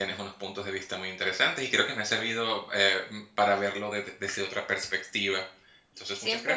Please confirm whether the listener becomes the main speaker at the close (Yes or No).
Yes